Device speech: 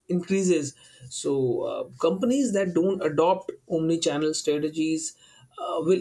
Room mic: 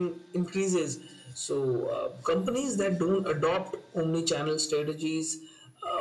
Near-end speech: none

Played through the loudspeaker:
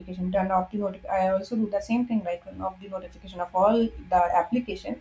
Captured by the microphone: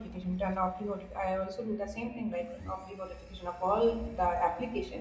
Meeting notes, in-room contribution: none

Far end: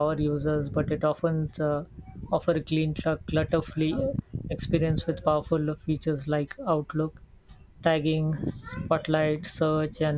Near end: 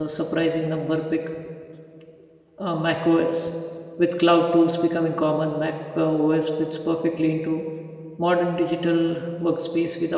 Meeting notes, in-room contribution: present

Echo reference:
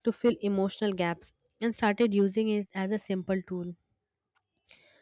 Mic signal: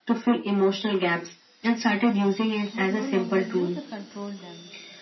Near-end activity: present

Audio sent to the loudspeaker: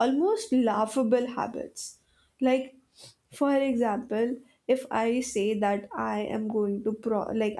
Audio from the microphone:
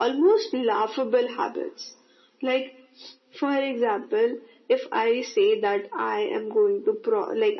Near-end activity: none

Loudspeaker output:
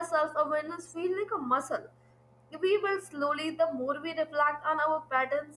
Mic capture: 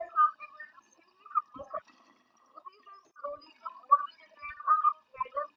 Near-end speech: none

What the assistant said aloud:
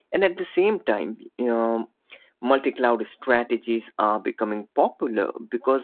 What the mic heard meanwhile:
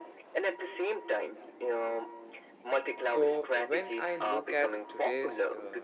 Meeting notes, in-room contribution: present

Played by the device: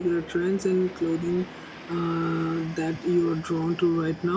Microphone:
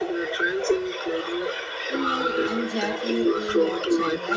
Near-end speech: present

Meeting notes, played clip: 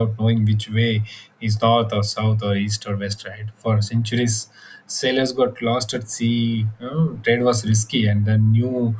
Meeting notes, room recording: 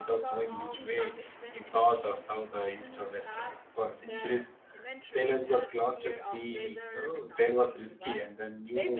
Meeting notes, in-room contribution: present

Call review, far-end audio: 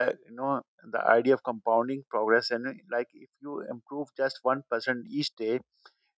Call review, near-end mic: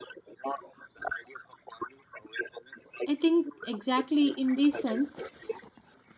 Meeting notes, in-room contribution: present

